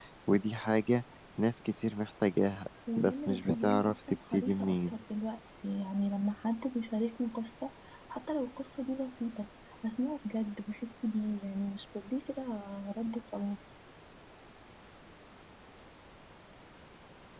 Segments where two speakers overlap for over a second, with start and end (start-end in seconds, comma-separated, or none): 3.0-4.9